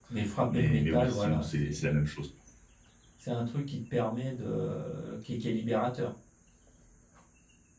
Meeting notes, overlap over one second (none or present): present